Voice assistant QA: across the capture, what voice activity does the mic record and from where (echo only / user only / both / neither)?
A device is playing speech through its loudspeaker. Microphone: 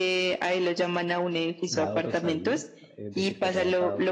both